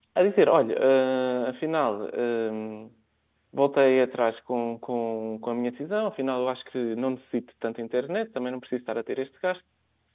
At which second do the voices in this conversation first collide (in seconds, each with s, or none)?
none